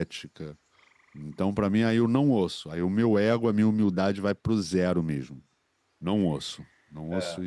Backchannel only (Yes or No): No